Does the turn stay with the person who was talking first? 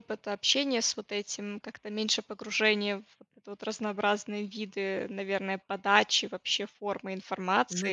No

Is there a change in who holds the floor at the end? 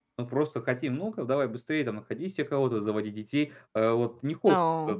No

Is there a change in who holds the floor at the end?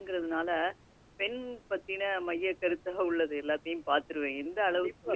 Yes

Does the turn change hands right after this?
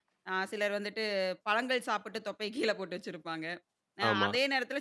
No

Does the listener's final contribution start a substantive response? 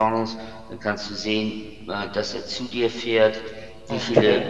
No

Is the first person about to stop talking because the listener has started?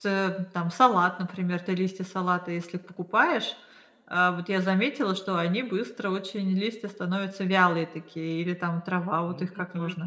Yes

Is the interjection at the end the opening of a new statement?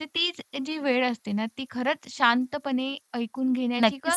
Yes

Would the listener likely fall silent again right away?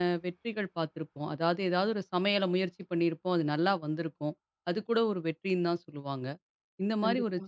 Yes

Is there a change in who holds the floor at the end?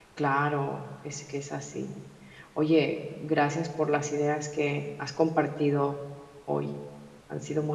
Yes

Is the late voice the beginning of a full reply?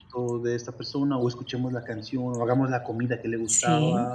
Yes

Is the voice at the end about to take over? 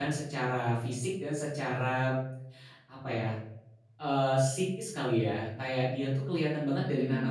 No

